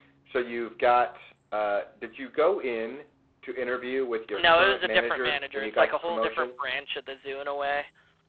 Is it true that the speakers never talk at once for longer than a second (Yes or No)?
No